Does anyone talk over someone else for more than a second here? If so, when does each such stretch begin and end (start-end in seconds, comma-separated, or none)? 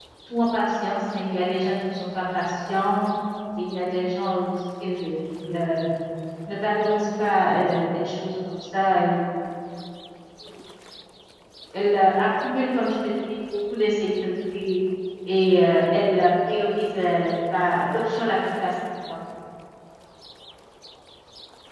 none